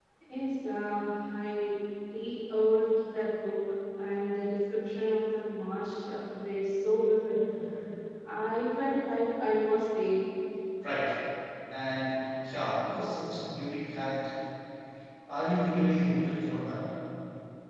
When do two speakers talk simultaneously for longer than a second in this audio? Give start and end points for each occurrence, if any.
none

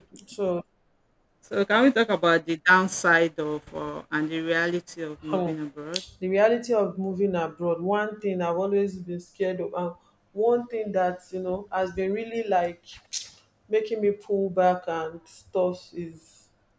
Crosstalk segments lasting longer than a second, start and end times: none

